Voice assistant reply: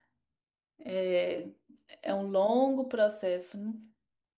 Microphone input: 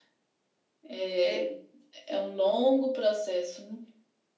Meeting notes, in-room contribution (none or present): present